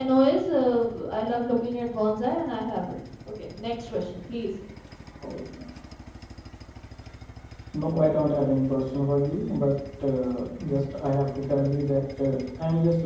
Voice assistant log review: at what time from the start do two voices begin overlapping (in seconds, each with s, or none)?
none